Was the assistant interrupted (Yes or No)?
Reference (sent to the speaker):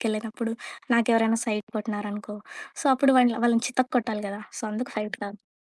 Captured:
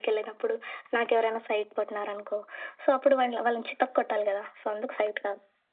No